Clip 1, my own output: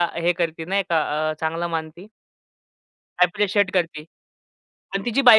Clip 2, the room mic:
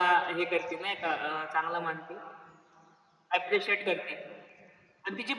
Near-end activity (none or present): none